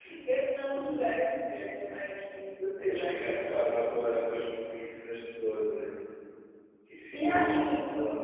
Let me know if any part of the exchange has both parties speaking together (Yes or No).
Yes